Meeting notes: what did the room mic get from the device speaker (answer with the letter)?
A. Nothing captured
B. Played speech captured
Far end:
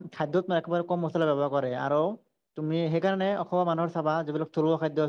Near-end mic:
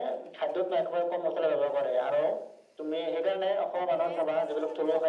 B